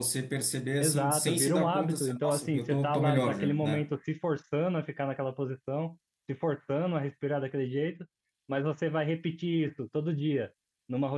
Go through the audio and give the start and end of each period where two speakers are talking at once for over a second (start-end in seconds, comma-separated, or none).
0.8-3.9